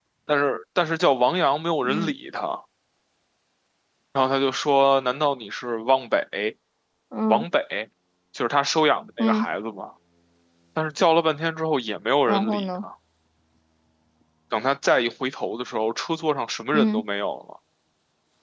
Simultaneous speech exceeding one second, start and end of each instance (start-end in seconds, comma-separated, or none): none